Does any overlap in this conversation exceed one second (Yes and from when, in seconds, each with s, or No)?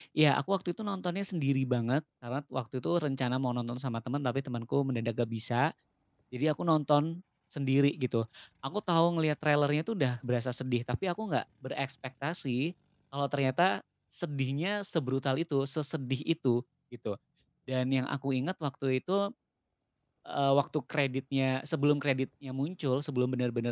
No